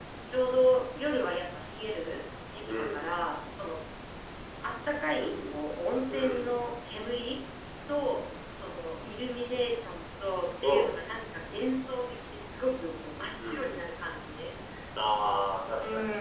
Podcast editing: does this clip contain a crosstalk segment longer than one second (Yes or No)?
No